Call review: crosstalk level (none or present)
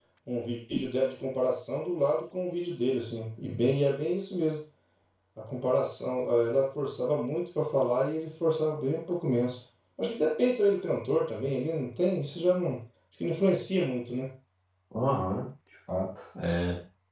none